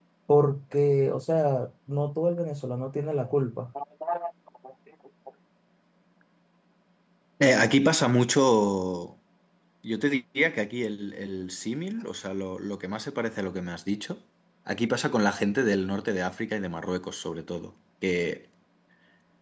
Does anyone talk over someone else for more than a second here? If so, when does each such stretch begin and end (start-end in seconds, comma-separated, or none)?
none